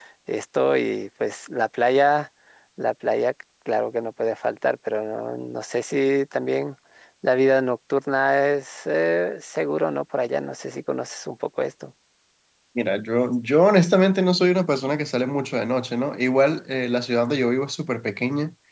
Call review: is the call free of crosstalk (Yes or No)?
Yes